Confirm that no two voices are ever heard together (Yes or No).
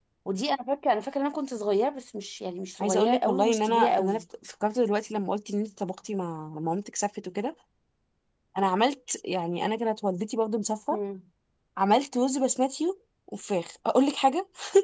No